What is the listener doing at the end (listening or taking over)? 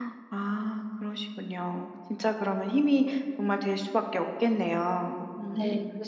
taking over